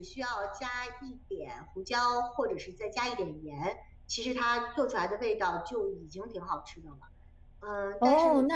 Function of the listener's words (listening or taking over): taking over